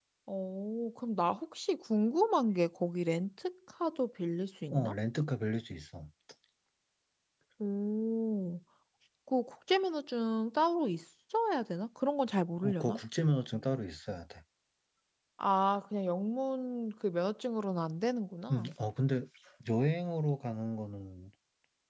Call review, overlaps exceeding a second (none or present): none